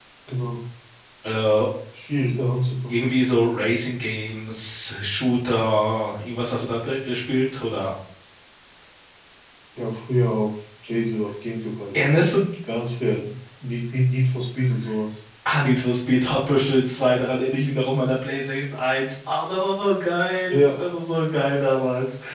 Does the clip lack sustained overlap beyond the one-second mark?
Yes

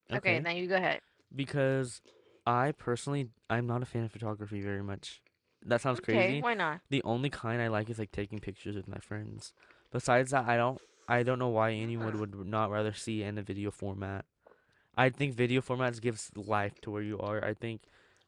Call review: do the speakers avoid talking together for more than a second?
Yes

